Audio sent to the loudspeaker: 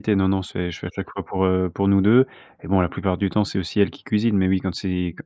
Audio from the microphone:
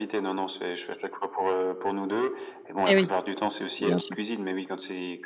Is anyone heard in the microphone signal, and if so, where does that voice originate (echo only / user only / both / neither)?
both